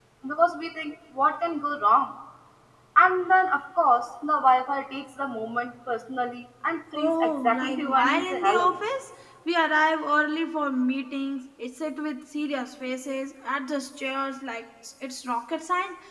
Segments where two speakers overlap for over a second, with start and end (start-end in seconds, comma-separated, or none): 7.0-8.8